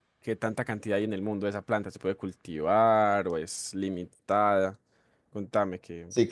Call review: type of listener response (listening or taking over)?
taking over